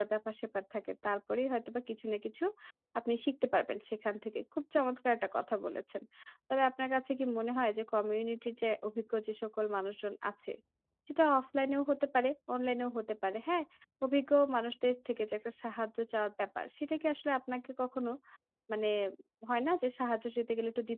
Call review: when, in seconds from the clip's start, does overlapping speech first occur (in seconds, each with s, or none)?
none